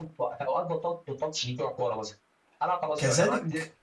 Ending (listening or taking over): taking over